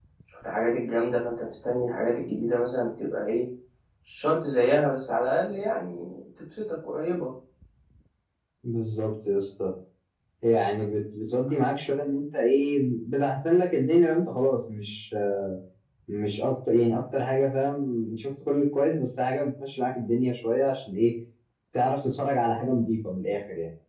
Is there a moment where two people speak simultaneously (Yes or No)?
No